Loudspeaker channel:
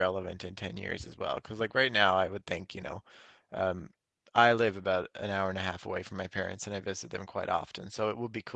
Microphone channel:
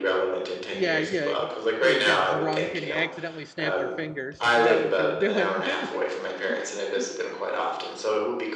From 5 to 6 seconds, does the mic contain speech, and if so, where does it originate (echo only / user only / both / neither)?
both